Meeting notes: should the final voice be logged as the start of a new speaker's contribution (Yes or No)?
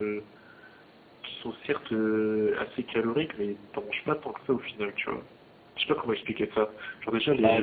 Yes